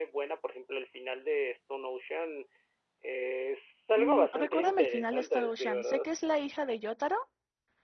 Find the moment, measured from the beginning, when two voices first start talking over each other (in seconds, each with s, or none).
4.0 s